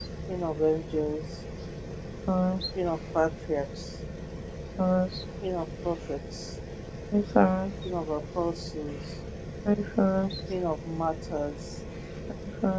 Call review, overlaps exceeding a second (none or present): none